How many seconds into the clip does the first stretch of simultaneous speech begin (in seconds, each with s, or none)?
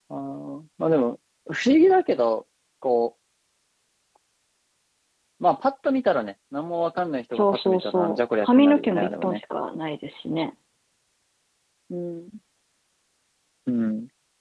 7.3 s